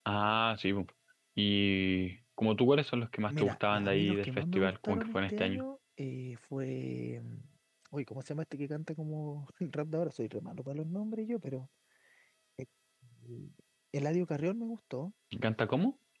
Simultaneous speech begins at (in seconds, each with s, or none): 3.3 s